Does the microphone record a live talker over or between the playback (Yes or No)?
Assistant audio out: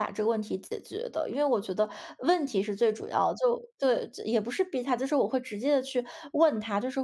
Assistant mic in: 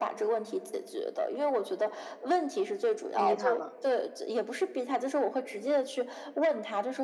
Yes